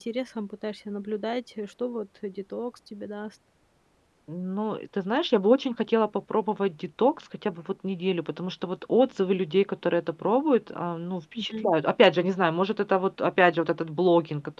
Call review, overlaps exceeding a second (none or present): none